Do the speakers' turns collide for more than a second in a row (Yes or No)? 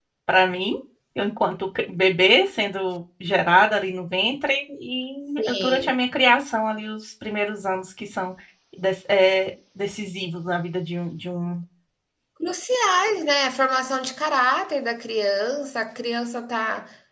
No